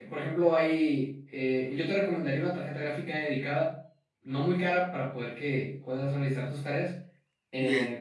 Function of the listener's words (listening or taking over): listening